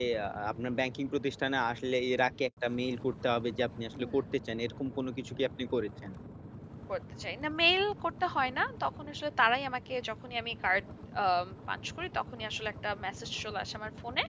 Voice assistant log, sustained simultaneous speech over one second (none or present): none